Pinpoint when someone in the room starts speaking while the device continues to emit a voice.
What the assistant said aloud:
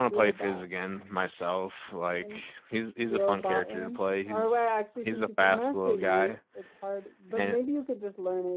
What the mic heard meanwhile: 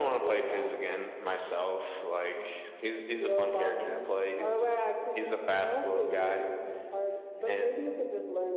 none

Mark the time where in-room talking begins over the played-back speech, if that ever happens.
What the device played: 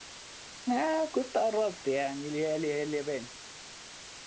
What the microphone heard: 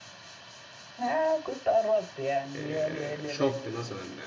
2.5 s

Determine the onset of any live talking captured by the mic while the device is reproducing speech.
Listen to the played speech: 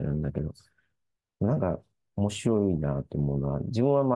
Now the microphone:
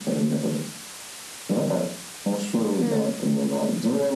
2.8 s

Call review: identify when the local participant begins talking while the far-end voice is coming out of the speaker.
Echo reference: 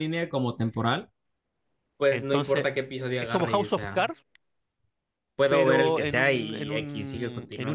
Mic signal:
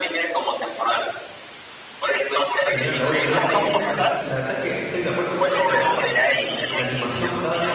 2.6 s

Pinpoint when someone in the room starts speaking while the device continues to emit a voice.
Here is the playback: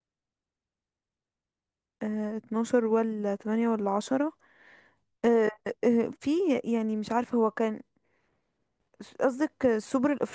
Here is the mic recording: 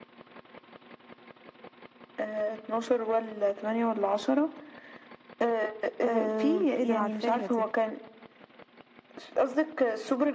6.0 s

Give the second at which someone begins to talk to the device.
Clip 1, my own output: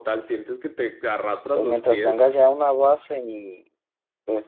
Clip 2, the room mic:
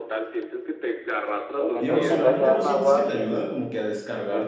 1.8 s

